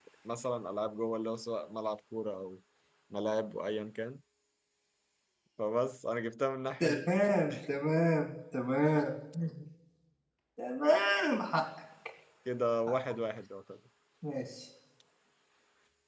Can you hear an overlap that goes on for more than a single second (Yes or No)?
No